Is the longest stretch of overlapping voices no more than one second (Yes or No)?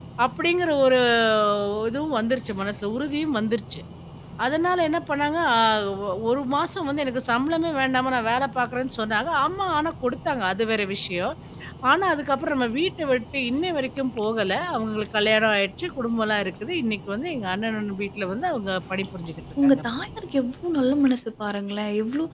Yes